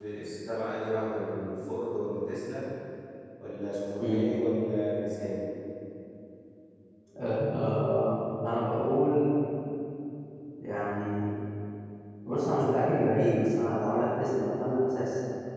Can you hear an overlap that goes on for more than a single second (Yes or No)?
No